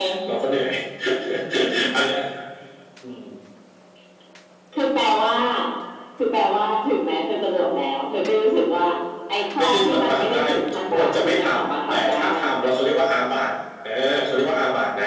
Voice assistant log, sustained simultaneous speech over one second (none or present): present